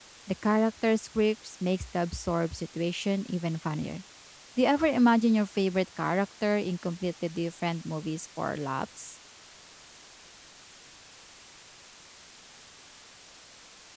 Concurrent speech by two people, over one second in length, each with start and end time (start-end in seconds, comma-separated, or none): none